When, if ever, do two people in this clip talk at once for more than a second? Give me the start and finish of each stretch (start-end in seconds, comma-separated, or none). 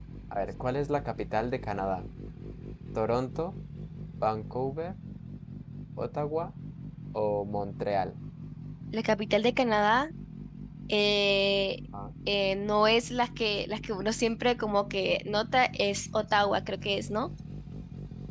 none